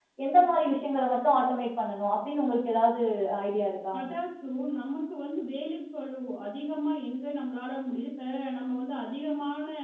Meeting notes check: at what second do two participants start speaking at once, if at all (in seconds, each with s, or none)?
none